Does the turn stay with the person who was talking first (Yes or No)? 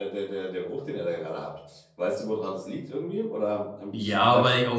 No